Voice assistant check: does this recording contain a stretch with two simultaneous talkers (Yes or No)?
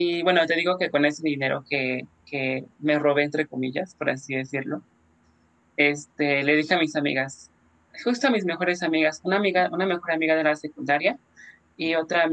No